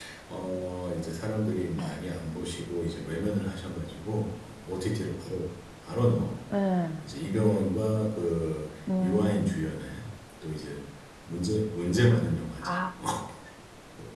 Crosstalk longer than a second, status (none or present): none